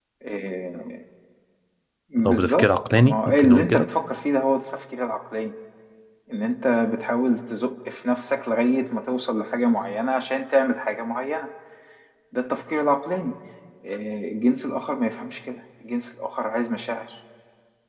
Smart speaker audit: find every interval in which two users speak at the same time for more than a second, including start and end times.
2.2-3.9

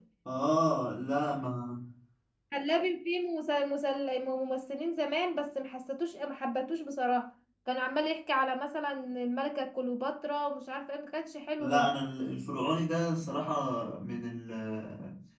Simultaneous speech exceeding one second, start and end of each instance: none

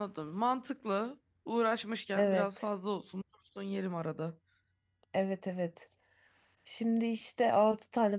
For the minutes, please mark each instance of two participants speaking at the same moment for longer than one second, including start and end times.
none

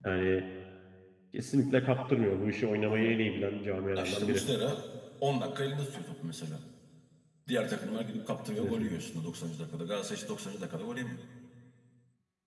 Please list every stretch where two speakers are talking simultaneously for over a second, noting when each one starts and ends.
none

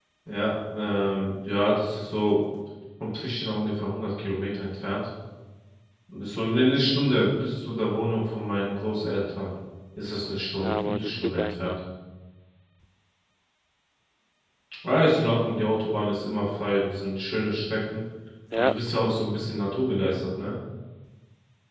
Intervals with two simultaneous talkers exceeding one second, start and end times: 10.6-11.8

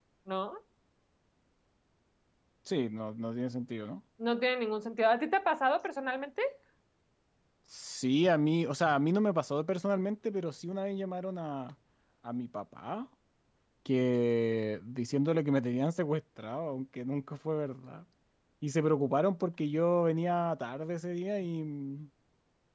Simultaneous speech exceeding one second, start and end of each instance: none

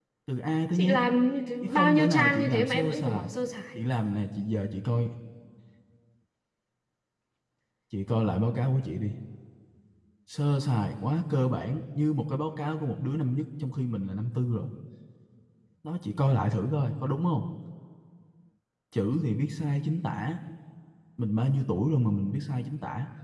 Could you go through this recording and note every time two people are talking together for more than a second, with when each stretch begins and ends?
1.6-3.3

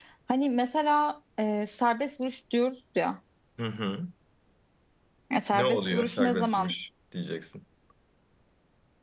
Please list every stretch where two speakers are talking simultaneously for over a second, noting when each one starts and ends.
5.5-6.7

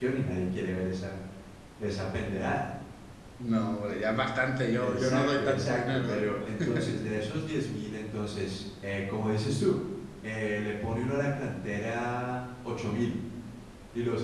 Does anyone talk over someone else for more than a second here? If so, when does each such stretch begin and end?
4.8-6.2

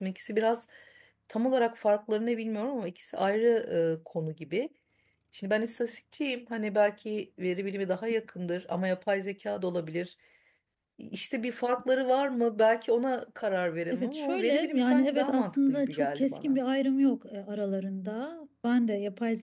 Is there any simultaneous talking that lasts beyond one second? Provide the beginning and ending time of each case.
13.9-16.6

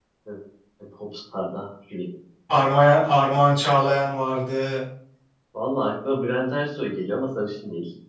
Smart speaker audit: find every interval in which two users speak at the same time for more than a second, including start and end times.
none

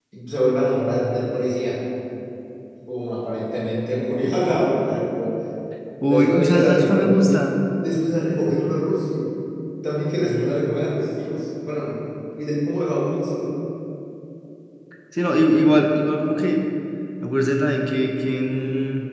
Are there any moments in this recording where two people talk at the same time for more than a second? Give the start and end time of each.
6.1-7.4

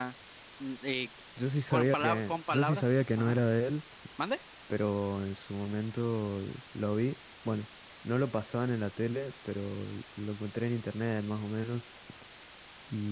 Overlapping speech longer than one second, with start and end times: 1.7-3.4

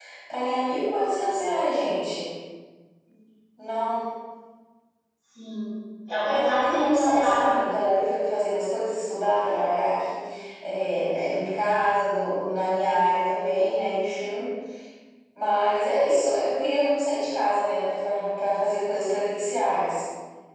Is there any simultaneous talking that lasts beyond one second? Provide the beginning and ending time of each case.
6.2-8.0

